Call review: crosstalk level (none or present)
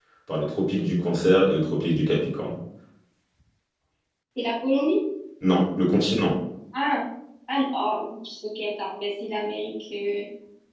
none